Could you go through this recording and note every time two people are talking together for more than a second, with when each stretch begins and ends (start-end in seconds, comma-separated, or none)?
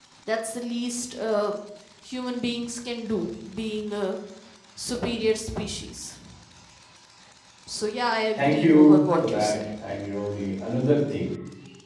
8.4-9.6